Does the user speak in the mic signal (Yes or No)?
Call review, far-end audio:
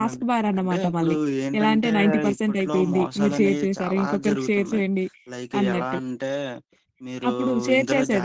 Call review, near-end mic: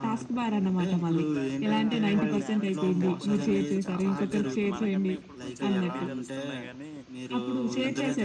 Yes